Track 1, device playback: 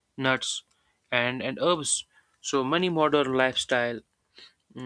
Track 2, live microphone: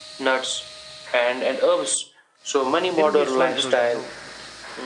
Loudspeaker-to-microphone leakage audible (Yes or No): Yes